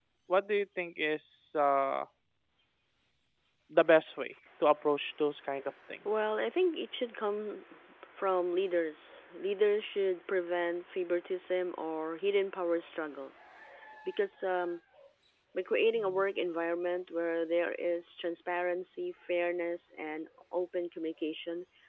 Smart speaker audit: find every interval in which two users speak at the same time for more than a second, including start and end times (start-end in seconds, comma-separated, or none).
none